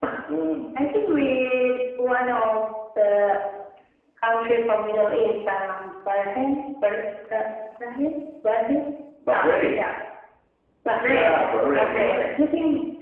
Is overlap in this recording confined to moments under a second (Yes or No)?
No